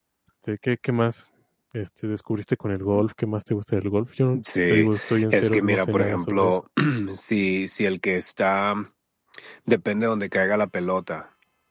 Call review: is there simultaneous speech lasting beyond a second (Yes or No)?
Yes